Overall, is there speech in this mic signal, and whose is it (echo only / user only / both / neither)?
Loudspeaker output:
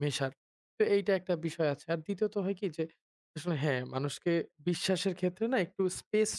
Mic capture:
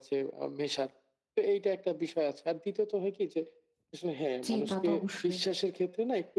both